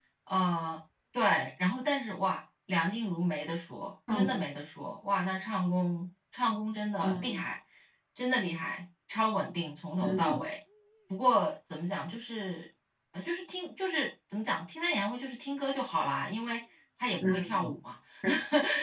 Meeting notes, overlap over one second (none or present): none